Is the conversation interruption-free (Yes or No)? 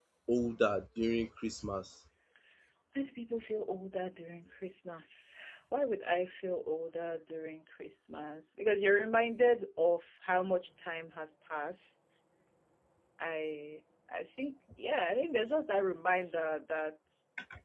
Yes